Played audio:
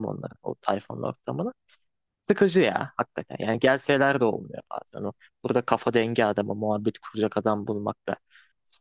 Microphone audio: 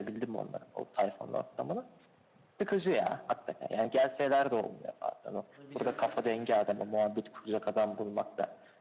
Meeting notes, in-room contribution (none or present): present